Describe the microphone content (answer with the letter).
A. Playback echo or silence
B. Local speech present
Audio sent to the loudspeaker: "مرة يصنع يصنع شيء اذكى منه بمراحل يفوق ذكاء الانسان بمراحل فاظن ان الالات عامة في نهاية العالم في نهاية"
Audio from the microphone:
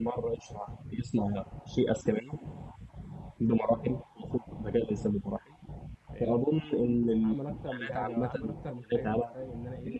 B